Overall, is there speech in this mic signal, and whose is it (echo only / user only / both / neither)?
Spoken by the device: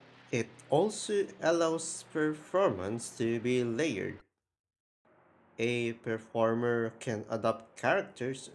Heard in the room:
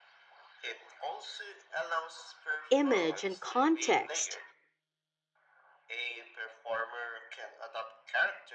both